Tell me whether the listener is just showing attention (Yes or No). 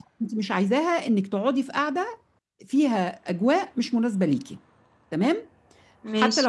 Yes